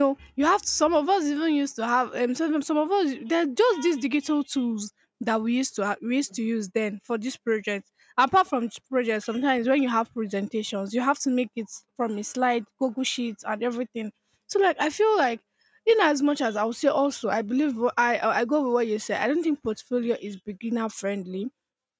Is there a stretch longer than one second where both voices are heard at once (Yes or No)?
No